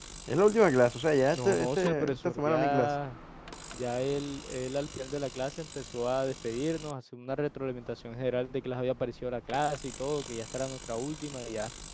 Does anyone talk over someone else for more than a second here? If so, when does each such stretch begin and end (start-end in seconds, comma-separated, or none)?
1.3-2.9